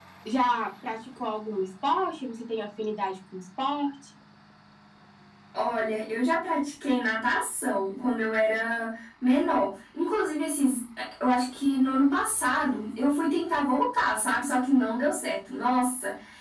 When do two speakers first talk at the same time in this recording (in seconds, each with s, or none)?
none